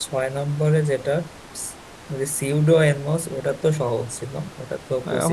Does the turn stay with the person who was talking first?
No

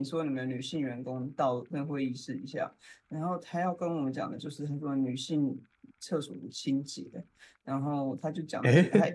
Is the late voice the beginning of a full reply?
No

